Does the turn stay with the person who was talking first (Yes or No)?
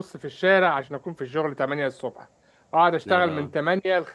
Yes